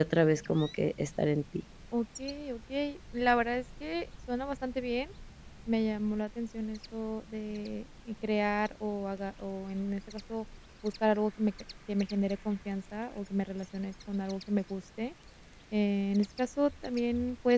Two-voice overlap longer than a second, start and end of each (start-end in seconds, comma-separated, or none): none